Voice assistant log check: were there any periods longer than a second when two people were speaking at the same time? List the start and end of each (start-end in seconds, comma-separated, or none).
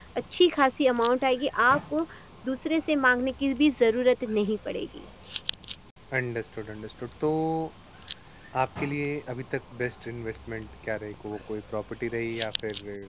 none